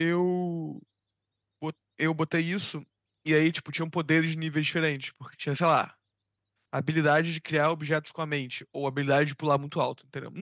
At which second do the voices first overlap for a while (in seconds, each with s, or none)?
none